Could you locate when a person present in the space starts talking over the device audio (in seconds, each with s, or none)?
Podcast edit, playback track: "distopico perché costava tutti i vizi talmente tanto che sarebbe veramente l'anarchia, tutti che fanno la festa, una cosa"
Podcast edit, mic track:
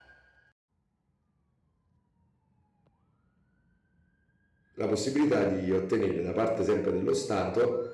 4.7 s